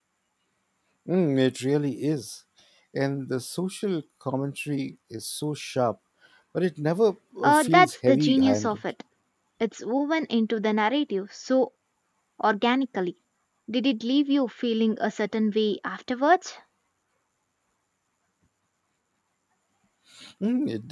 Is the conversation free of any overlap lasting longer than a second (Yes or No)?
No